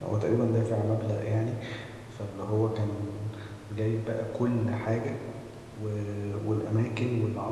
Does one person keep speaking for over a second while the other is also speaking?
No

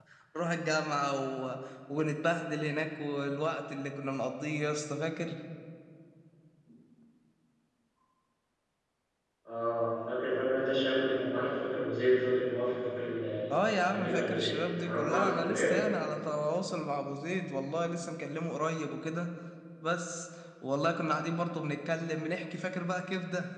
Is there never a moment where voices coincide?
No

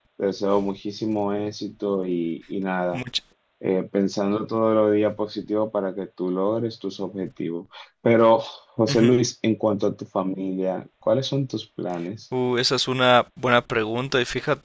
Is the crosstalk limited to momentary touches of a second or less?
Yes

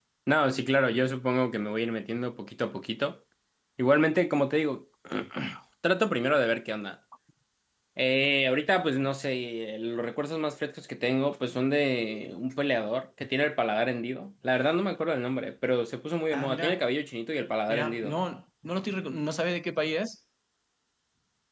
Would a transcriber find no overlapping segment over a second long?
Yes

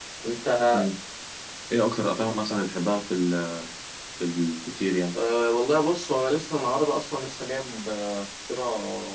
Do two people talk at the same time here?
No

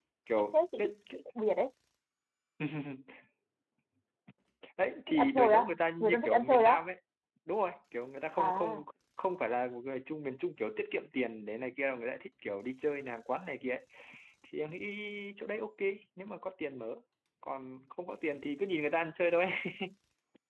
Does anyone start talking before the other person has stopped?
Yes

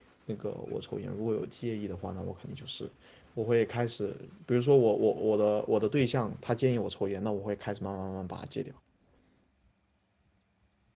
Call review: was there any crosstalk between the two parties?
No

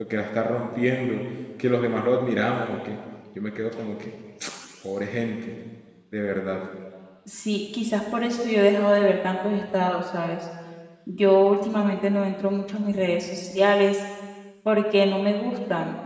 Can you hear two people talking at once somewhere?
No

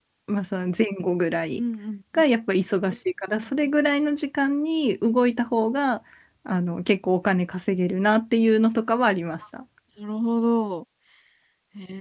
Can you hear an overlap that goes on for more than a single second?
No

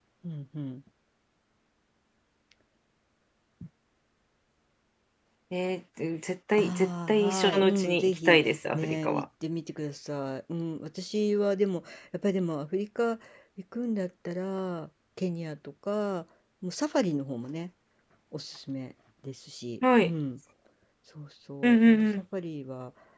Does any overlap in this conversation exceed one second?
Yes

